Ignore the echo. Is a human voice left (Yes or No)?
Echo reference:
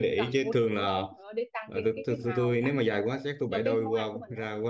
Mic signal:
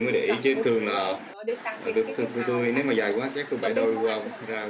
No